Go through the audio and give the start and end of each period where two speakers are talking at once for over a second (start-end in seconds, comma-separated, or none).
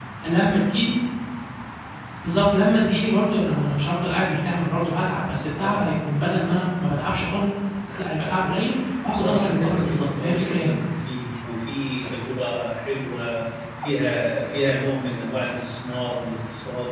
9.1-10.7